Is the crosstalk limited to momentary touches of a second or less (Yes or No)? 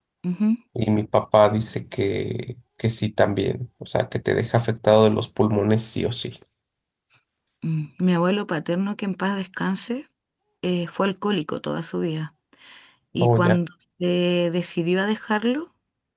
Yes